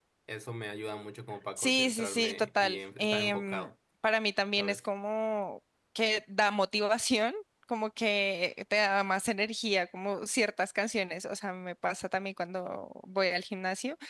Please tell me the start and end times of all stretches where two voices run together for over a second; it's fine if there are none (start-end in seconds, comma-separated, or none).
1.6-3.7